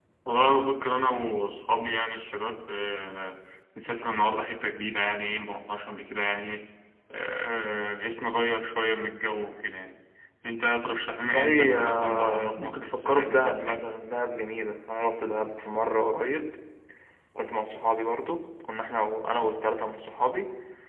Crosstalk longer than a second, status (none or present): present